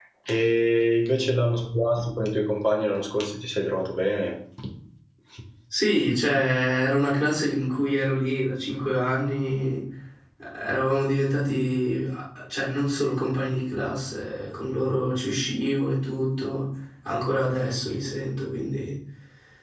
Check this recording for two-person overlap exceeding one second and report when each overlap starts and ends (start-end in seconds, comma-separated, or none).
none